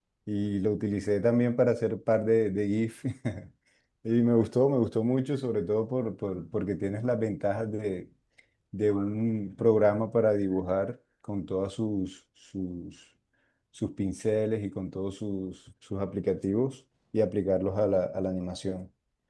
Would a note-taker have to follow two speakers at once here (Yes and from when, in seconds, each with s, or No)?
No